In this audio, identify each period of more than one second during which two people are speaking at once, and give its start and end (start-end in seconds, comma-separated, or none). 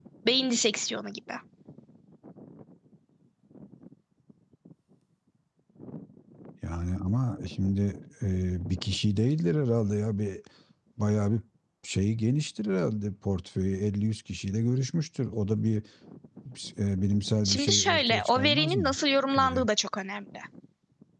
17.4-19.0